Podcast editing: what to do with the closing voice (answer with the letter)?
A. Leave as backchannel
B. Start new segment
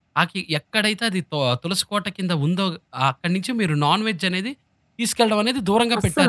B